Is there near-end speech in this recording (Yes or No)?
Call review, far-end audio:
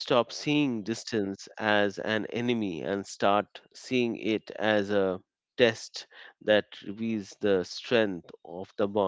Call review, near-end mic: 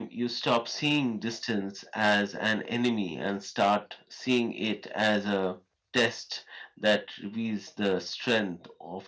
No